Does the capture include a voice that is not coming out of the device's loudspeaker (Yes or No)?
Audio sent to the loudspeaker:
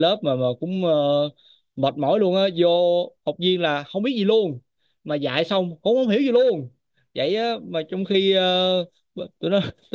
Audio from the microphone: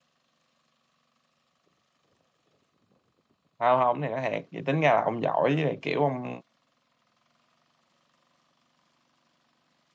Yes